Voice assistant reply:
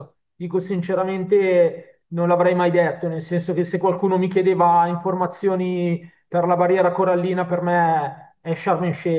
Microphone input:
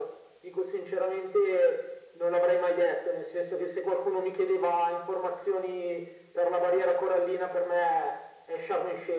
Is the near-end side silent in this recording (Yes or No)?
Yes